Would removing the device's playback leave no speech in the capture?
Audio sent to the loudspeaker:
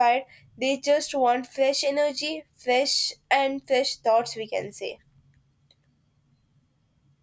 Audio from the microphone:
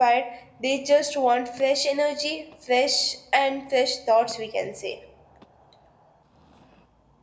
Yes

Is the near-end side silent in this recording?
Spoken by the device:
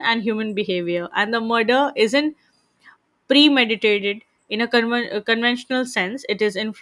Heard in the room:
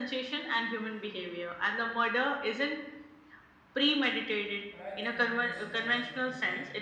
No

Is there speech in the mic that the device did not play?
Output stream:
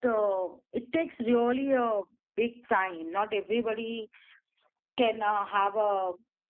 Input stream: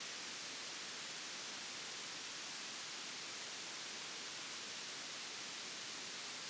No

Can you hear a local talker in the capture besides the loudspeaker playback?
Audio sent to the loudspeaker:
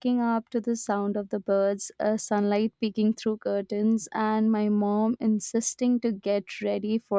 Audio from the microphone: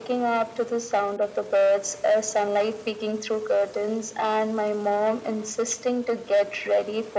No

